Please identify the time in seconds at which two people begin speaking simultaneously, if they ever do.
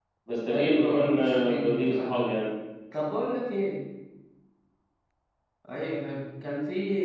1 s

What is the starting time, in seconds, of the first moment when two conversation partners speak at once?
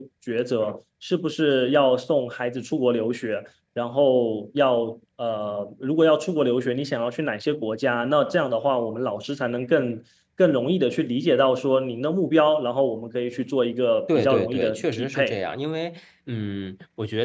14 s

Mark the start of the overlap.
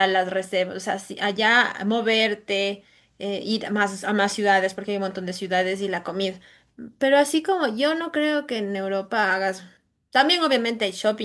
none

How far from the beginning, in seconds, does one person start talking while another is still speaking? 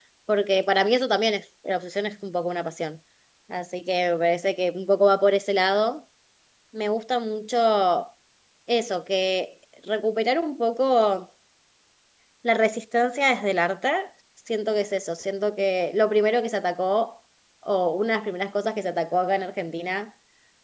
none

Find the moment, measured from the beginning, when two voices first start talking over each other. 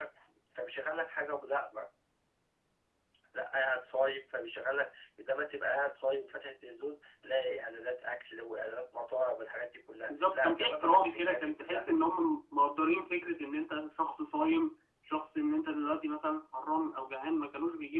10 s

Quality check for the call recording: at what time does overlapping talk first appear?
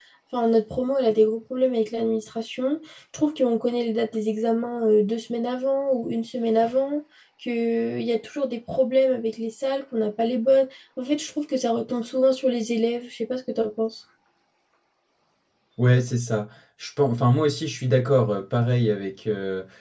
none

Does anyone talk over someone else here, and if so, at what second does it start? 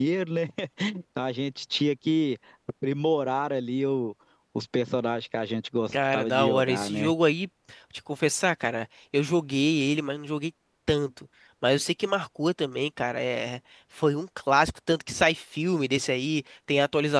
6 s

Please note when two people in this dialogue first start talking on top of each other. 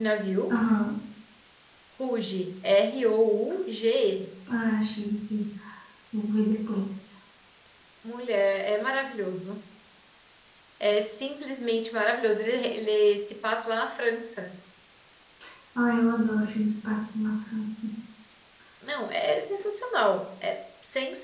none

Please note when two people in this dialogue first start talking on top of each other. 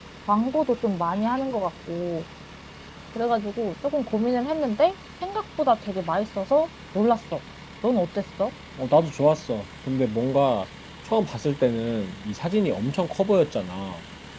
none

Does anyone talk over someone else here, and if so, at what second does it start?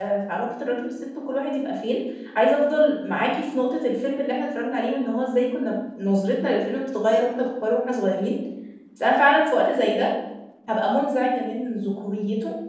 none

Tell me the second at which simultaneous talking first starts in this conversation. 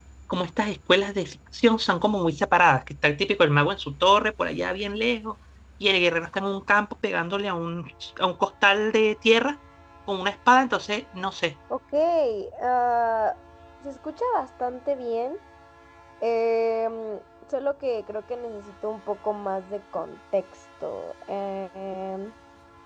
none

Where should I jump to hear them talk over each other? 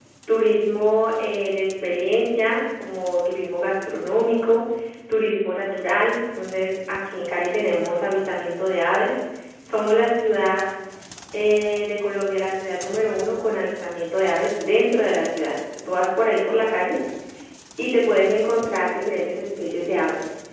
none

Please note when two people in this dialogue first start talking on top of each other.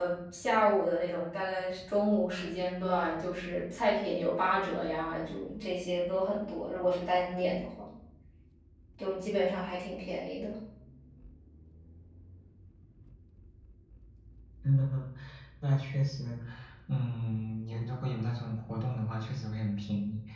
none

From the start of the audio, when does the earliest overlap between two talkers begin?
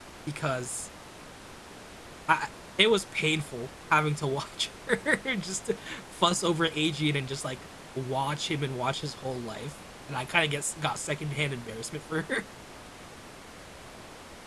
none

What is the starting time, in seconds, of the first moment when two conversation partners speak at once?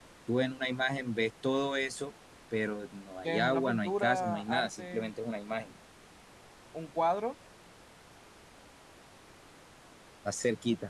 3 s

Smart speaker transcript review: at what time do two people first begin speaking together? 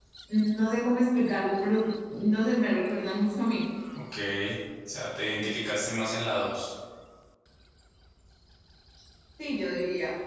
none

